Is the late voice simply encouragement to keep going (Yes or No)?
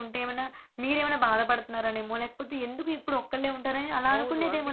No